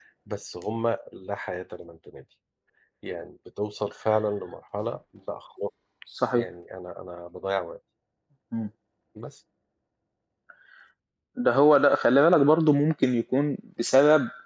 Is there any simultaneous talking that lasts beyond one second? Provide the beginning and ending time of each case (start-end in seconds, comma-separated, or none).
none